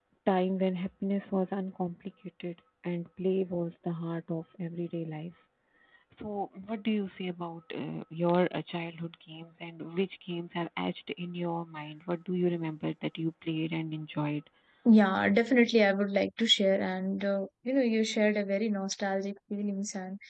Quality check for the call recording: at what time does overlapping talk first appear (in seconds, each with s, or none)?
none